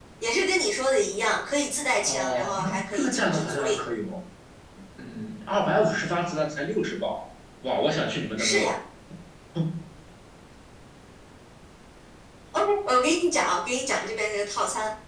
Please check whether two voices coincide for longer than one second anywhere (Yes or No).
Yes